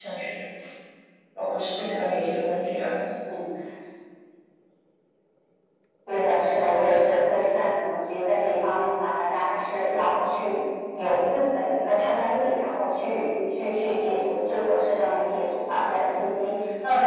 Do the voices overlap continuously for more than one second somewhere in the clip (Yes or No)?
No